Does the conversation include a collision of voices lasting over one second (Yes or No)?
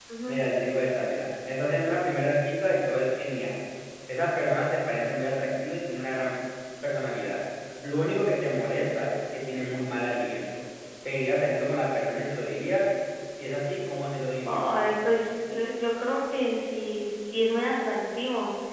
No